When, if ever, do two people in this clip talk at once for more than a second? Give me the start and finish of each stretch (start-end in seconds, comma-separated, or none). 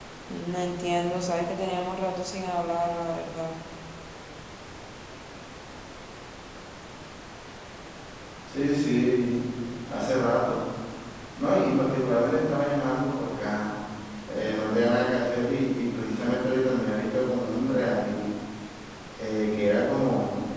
none